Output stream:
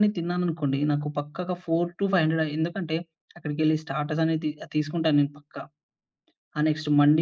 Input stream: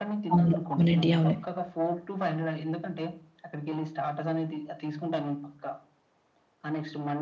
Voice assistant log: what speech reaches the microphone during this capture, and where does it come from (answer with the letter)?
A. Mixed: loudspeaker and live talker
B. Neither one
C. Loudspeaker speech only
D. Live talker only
A